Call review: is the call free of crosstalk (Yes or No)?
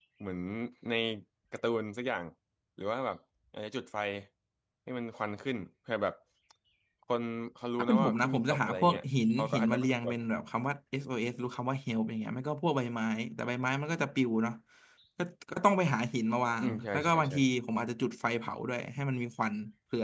No